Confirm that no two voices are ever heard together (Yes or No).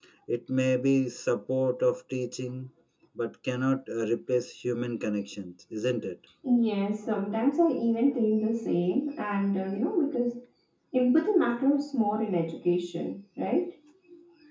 Yes